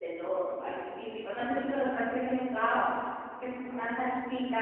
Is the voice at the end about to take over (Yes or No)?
No